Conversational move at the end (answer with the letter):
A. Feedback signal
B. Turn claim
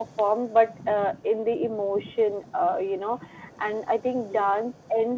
A